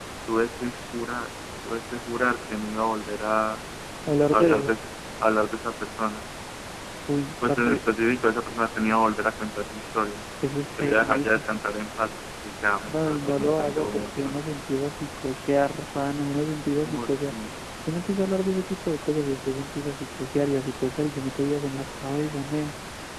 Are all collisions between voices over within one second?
No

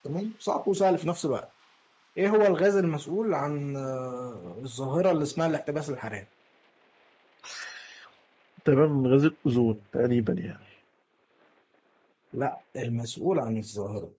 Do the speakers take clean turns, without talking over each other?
Yes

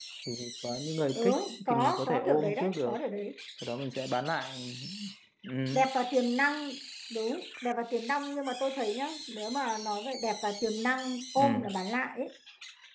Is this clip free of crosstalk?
No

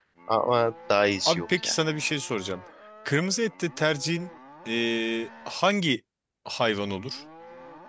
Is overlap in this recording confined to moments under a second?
Yes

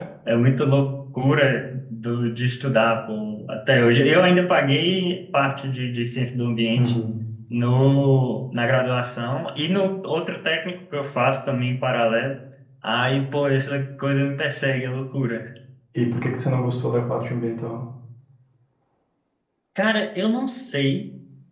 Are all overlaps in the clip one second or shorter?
Yes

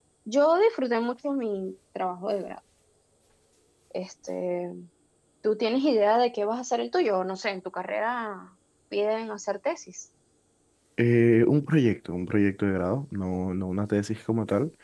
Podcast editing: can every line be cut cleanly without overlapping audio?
Yes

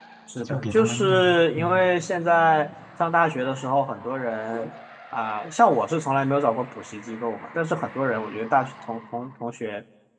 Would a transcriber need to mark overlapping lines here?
Yes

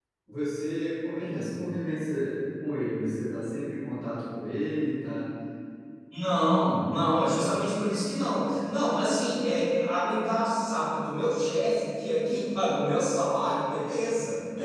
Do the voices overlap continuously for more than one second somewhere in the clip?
No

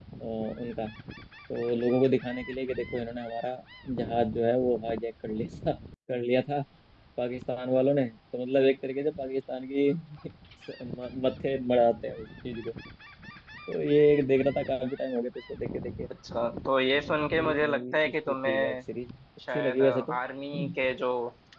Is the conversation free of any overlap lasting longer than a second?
No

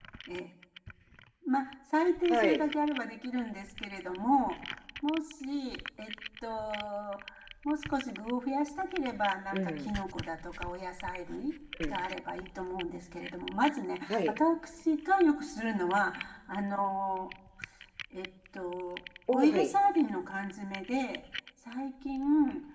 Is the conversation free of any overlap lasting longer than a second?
Yes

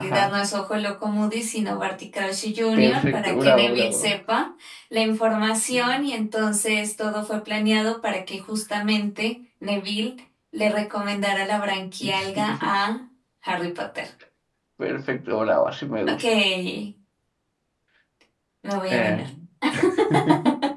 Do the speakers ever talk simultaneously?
Yes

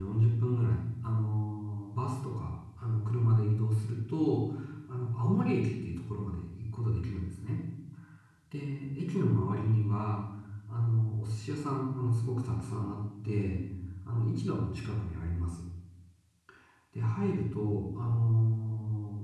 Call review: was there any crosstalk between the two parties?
No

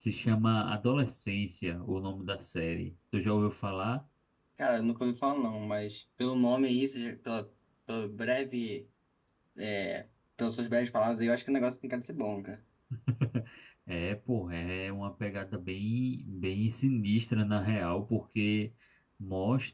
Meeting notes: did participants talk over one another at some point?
No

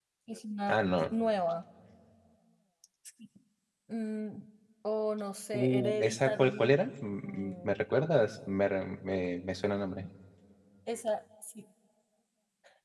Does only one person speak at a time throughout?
No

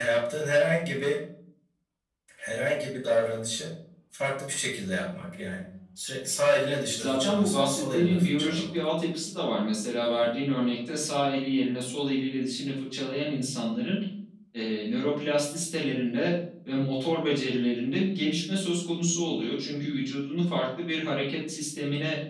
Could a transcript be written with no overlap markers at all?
No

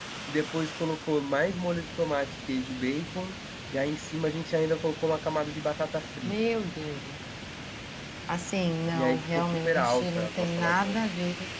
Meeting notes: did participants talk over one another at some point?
Yes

